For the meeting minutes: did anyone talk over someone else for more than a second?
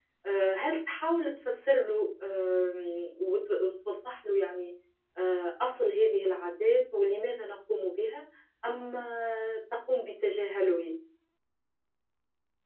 No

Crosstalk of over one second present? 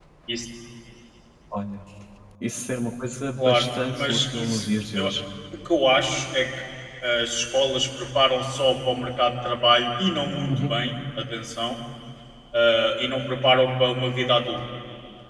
Yes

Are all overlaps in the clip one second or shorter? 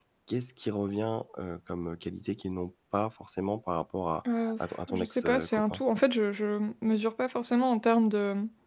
No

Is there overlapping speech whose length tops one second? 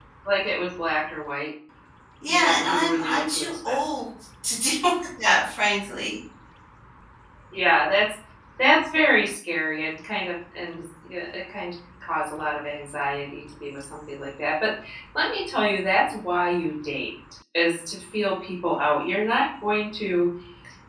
Yes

